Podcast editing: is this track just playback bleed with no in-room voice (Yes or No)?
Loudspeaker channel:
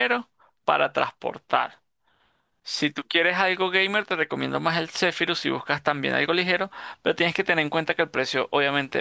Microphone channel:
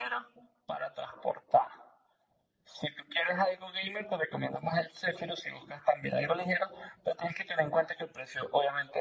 Yes